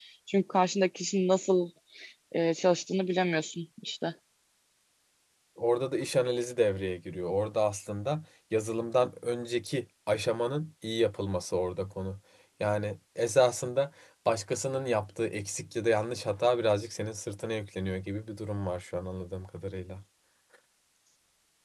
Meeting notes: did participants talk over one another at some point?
No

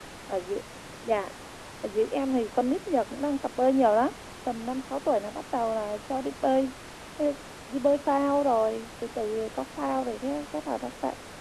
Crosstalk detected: No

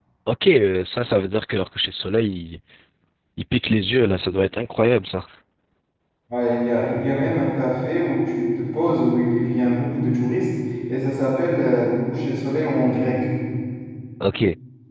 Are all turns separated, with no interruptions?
Yes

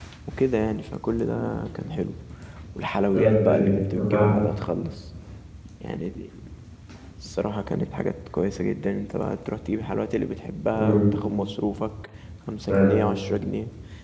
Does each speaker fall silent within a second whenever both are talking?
No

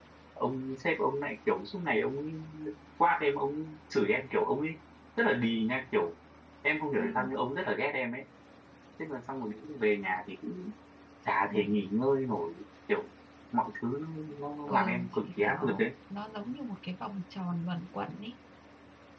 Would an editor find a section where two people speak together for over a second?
Yes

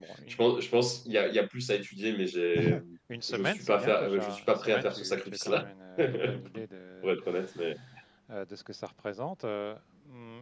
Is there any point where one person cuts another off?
Yes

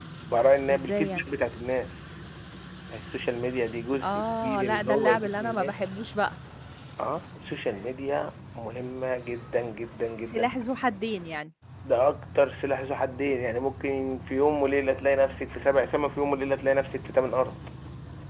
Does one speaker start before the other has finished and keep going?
Yes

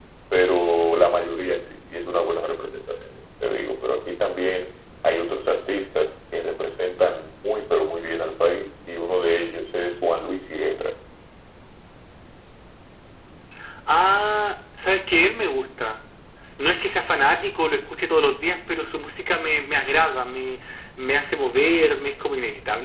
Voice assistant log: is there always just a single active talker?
Yes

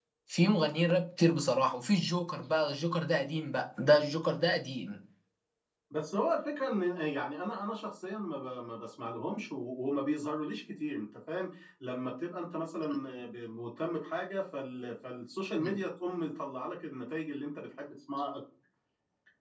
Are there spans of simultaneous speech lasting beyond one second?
No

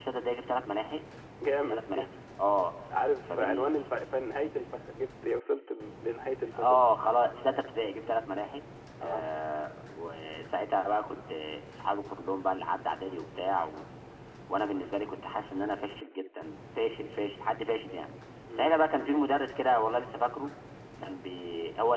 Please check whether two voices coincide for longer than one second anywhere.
No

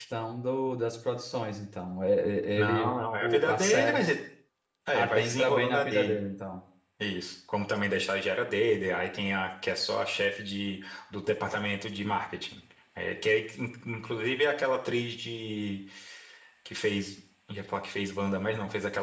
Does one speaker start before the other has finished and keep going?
Yes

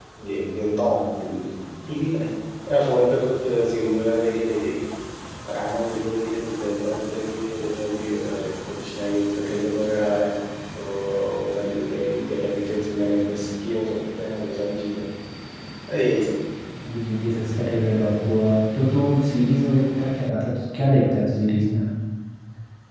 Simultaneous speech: No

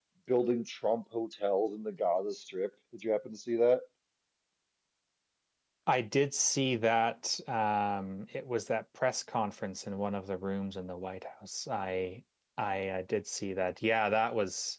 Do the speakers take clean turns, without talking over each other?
Yes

